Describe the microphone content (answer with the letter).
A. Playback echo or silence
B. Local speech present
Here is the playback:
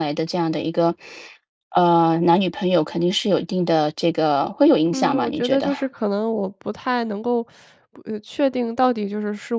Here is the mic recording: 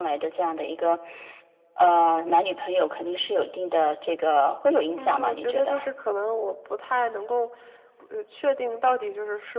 A